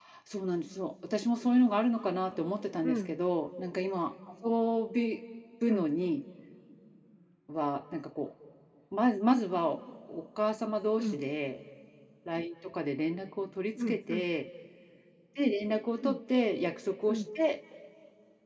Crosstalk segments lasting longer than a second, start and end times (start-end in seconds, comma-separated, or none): none